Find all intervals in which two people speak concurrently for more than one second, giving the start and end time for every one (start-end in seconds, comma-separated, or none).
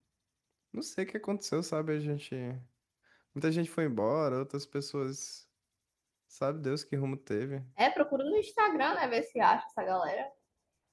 none